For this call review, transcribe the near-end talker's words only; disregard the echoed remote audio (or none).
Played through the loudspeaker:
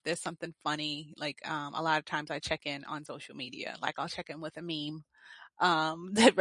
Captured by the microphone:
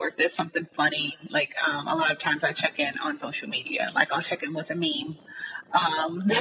none